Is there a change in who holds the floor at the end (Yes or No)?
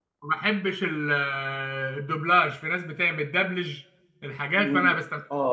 Yes